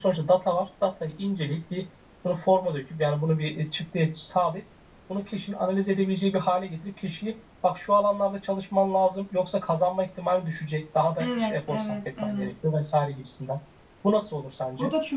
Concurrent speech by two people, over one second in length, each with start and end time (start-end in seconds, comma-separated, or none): 11.2-12.5